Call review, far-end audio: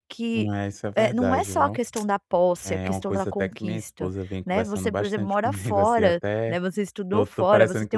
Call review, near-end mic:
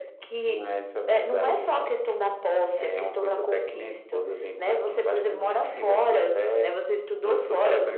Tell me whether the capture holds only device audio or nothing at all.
Yes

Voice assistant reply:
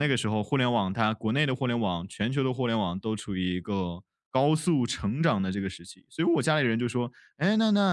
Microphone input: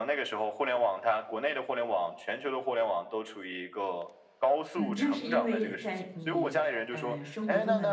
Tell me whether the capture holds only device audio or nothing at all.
No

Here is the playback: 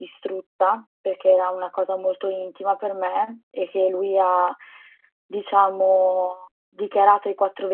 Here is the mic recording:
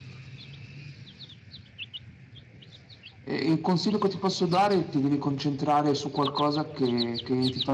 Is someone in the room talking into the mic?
Yes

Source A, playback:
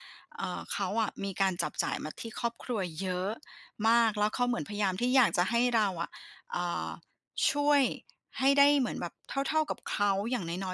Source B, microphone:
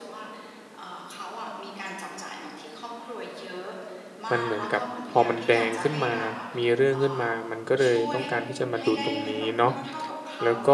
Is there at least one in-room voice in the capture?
Yes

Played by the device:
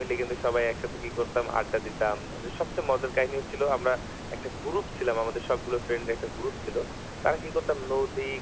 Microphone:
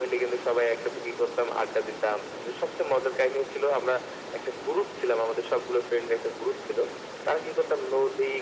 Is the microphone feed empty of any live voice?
Yes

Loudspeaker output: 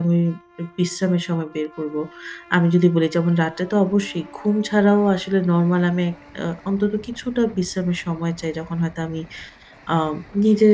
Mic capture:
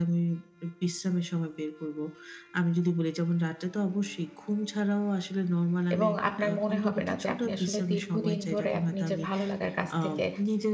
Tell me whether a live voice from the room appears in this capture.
Yes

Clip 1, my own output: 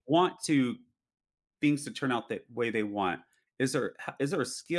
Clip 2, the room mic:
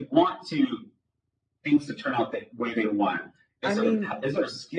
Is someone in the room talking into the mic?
Yes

